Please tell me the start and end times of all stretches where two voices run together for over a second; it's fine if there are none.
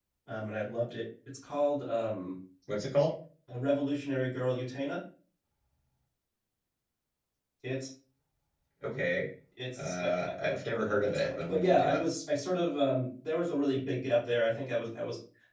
9.8-12.0

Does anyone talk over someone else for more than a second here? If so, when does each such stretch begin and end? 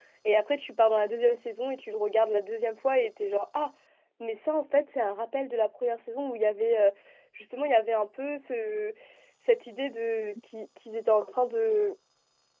none

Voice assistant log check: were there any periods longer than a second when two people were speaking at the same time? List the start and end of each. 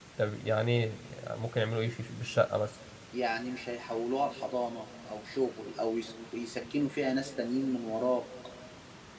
none

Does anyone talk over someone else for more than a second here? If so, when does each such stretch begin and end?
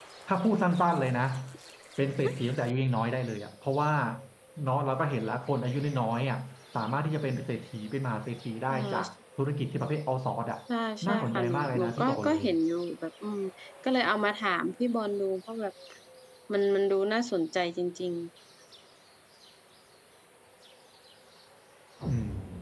11.1-12.4

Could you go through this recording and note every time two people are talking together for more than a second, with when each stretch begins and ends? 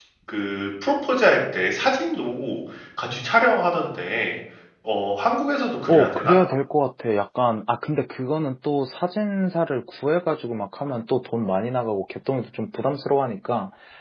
none

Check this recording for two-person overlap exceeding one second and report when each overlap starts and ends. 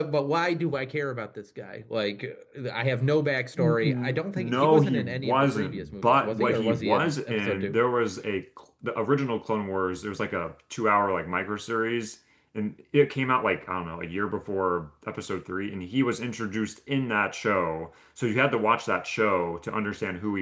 3.6-7.8

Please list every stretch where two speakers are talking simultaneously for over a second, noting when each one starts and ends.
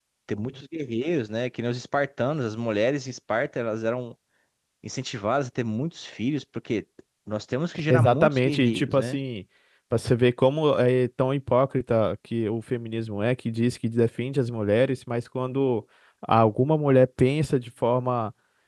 7.9-9.2

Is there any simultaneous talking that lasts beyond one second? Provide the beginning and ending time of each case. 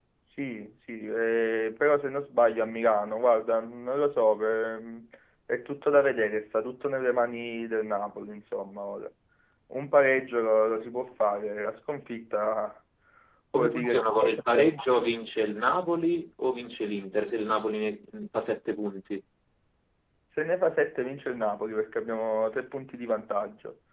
13.5-14.7

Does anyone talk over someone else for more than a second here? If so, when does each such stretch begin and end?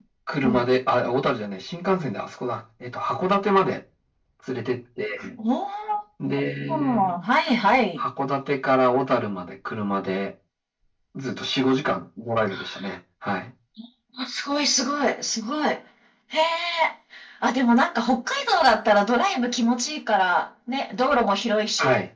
none

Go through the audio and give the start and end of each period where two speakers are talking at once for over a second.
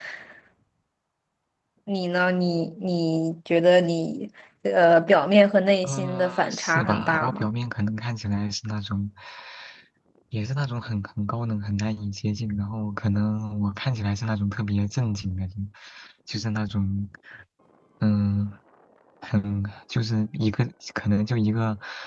5.8-7.5

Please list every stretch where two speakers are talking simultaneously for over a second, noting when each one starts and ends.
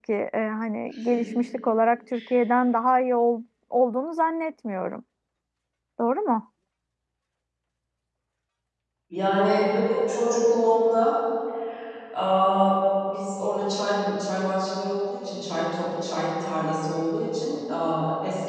none

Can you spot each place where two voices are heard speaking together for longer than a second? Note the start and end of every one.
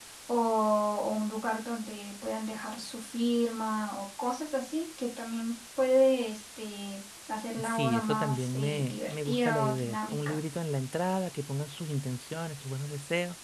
7.6-10.4

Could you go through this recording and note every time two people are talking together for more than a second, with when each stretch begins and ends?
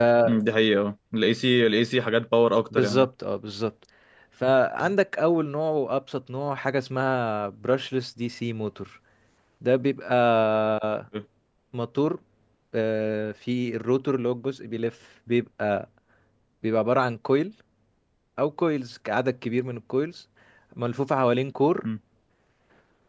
none

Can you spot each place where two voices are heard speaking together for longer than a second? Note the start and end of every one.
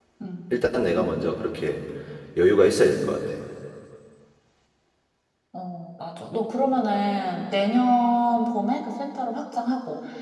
none

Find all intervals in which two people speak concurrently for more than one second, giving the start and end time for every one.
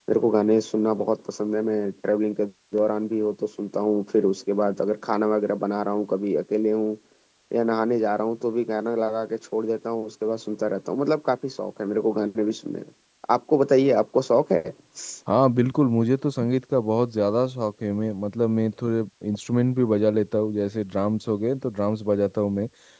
none

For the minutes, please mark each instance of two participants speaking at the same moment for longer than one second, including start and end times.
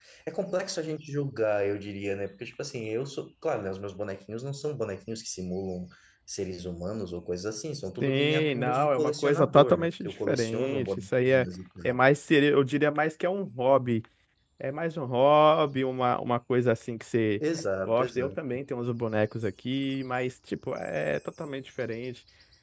8.0-11.5

